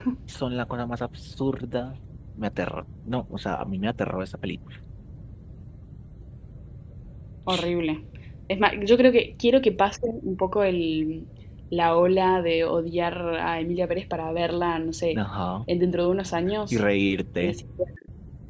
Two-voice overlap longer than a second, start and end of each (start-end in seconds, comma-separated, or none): none